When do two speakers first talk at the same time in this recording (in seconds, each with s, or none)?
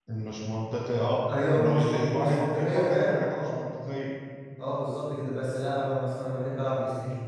1.3 s